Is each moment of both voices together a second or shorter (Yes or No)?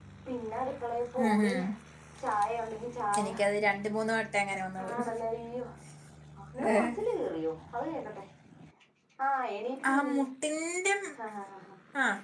Yes